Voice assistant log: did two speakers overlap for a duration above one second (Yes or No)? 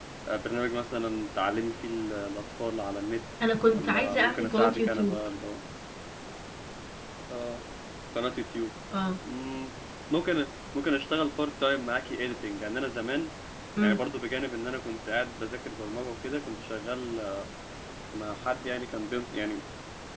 Yes